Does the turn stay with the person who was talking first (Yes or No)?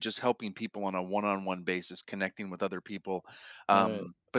Yes